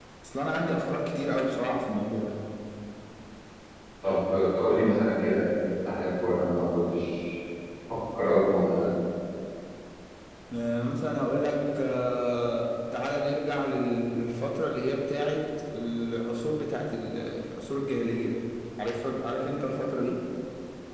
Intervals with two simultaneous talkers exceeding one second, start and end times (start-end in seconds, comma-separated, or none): none